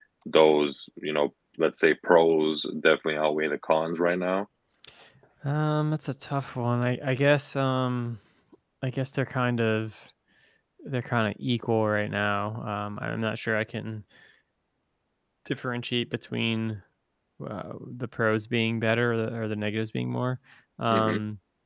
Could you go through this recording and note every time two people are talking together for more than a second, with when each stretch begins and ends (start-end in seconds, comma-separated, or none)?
none